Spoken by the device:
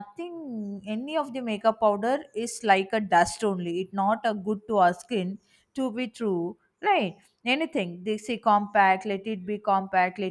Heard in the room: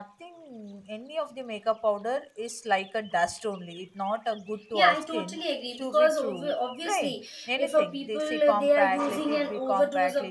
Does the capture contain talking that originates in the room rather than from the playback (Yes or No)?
Yes